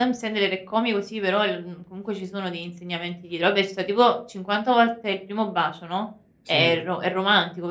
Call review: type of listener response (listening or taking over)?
listening